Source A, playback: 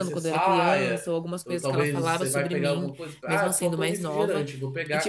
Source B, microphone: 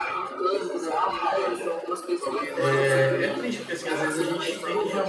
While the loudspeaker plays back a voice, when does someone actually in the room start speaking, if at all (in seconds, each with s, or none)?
2.5 s